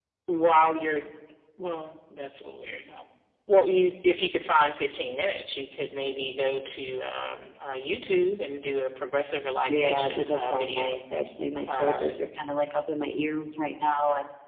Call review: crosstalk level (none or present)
present